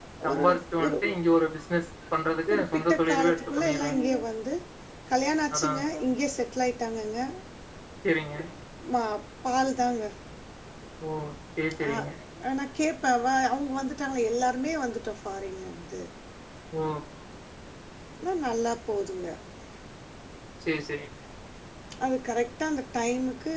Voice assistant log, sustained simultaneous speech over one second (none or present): present